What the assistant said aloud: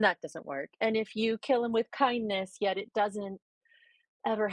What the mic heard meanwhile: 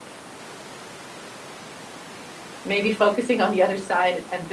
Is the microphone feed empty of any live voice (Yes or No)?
No